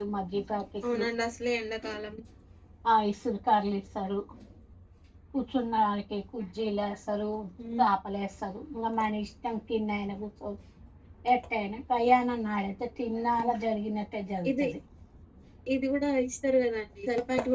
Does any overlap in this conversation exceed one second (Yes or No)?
No